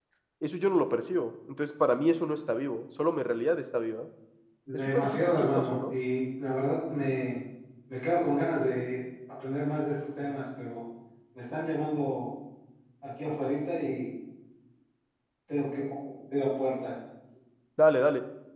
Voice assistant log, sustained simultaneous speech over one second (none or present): present